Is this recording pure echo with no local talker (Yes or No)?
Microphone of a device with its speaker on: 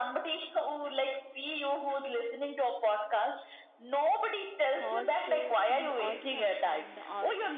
No